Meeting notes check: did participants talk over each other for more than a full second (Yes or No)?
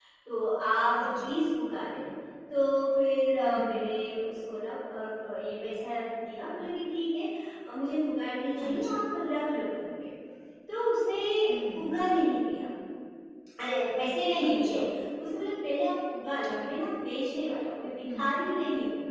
No